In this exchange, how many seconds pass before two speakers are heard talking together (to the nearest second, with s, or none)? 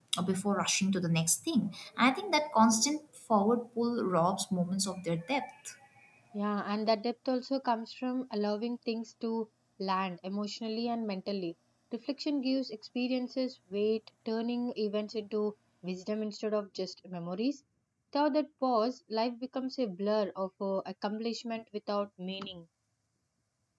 none